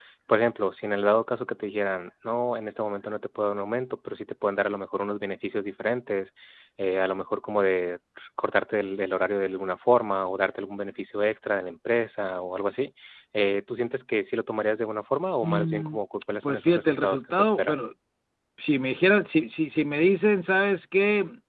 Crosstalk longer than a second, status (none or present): present